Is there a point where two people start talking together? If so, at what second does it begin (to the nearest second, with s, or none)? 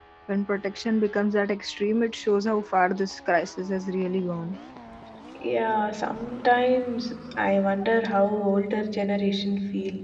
none